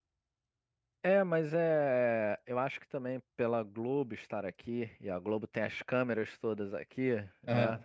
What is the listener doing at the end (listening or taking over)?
listening